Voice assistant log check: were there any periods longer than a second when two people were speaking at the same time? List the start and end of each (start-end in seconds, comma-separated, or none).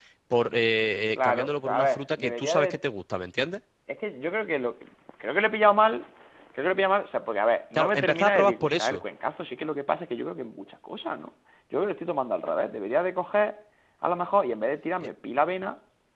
1.1-2.8, 7.7-9.0